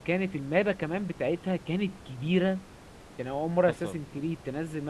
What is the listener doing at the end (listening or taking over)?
listening